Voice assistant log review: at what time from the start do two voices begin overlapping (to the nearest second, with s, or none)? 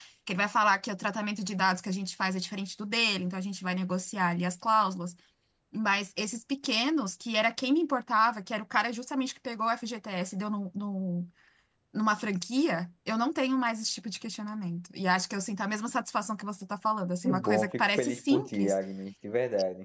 17 s